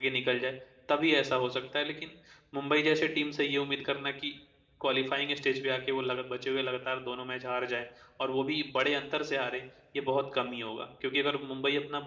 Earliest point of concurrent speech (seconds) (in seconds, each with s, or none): none